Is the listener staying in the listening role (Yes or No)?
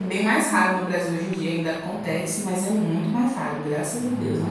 No